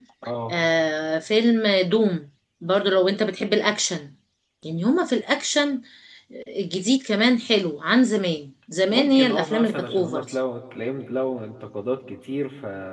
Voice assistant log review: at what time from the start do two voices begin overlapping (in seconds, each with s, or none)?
8.9 s